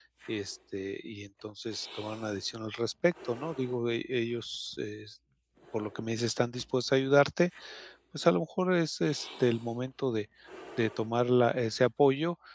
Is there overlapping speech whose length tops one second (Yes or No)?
No